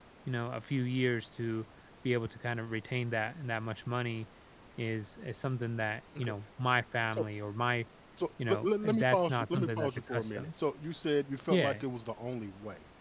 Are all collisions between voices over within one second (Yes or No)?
No